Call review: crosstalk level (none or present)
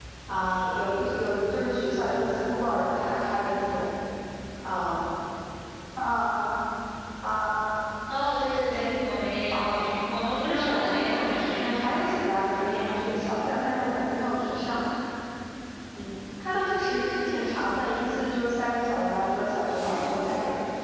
present